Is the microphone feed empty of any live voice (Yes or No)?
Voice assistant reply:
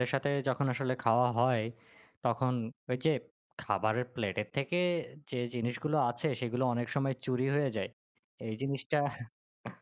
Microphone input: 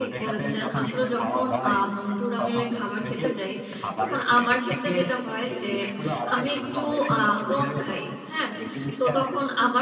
No